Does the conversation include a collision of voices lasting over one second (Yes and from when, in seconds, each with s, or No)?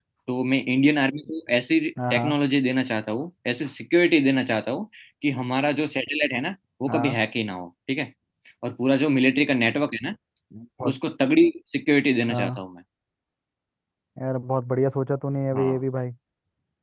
No